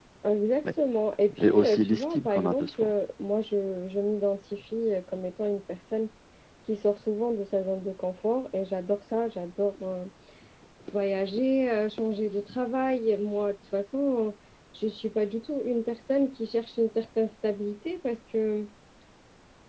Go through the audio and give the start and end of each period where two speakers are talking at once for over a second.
1.4-2.9

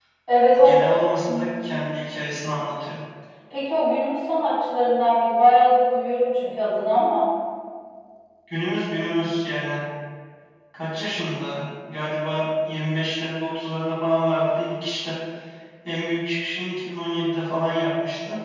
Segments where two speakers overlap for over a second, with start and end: none

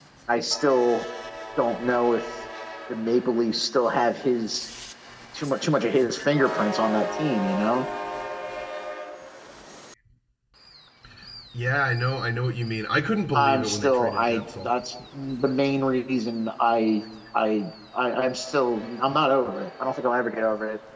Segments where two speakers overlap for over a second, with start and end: 13.3-14.7

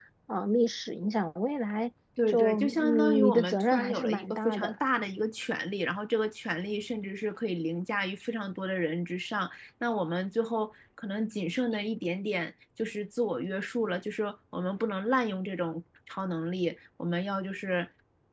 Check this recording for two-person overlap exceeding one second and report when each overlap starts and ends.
2.3-4.8

